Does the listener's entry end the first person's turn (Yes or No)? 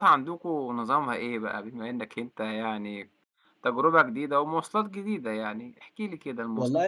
Yes